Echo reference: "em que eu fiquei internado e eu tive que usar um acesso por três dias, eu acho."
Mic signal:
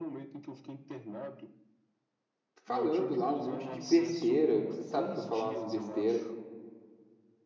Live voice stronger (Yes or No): Yes